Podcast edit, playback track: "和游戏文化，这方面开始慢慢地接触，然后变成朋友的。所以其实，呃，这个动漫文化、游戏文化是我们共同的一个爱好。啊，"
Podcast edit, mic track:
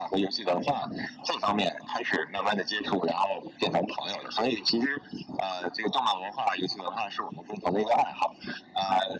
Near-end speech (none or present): none